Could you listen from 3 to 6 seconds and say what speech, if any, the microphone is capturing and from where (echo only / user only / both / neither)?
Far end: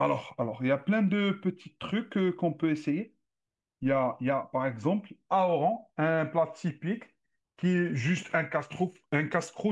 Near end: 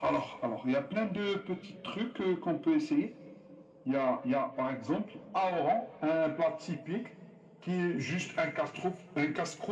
echo only